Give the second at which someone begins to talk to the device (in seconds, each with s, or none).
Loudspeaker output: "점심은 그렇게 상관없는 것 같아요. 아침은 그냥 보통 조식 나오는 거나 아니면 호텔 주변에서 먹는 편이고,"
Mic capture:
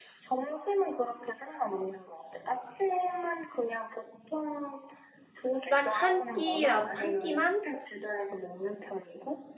5.7 s